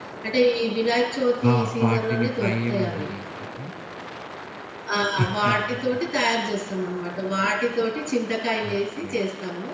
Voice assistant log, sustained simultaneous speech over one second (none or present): present